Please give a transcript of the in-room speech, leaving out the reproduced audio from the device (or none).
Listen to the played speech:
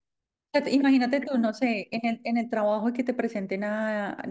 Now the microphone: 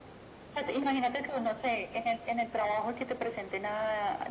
none